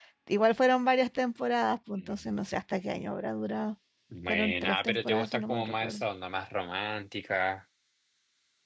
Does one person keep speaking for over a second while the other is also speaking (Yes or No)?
Yes